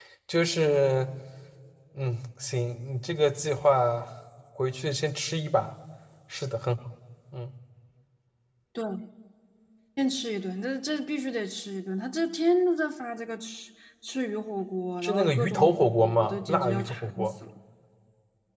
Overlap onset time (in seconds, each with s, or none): 15.0 s